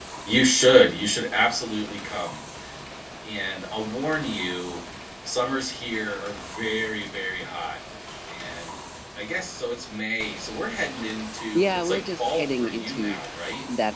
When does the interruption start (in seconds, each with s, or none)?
11.5 s